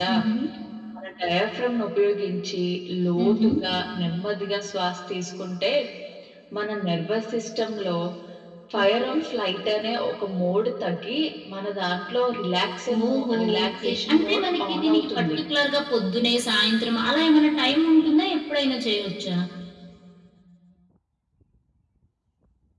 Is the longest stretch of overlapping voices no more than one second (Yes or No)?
No